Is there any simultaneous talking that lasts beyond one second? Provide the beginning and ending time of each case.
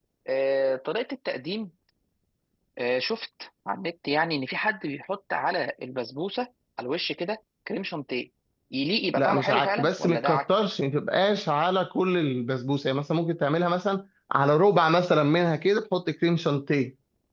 9.2-10.4

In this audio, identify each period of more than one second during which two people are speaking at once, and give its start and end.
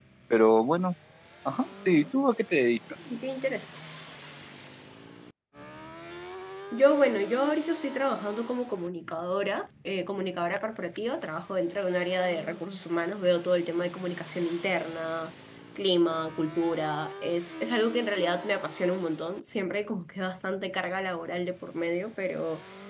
none

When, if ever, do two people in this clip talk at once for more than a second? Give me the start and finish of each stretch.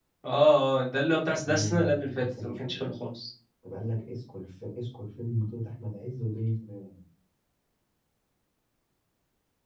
1.3-2.9

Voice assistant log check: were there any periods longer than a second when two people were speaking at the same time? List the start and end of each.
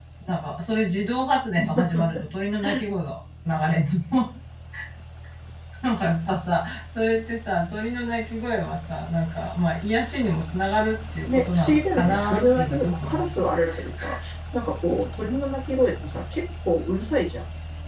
11.2-13.5

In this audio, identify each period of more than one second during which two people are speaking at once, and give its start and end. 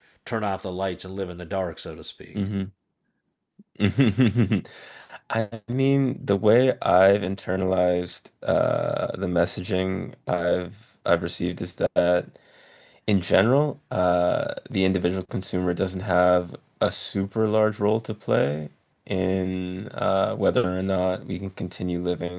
none

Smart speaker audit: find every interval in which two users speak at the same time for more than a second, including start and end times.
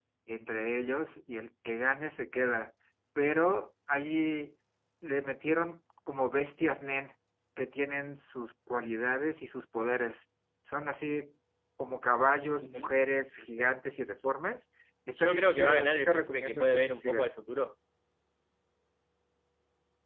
15.2-17.3

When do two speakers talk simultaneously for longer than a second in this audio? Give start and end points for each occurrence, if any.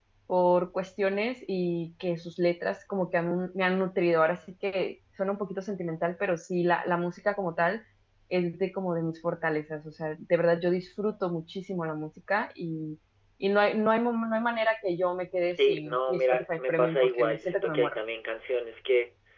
15.5-18.0

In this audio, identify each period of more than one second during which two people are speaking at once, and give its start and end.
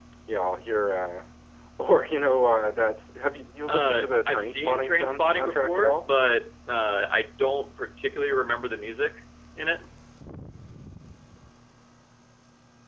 3.7-6.1

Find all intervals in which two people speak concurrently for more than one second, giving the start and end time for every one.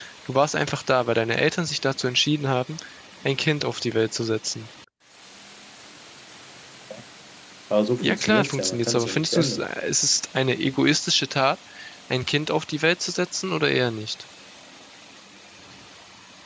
8.0-9.6

